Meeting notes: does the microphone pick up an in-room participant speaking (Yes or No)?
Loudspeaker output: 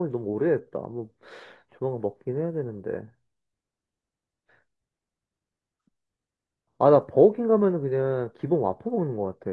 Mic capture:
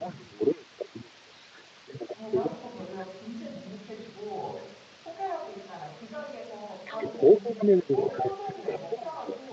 Yes